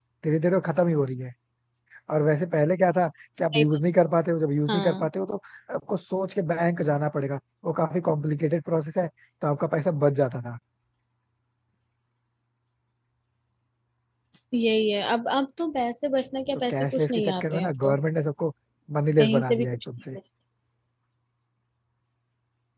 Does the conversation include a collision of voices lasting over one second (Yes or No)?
Yes